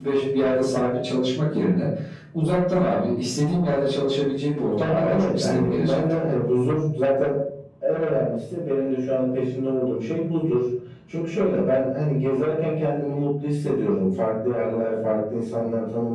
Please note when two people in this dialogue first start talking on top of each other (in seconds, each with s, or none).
4.8 s